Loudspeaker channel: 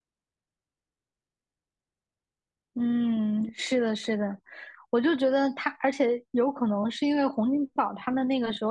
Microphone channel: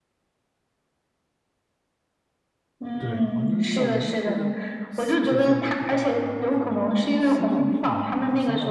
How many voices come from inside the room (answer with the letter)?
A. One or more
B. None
A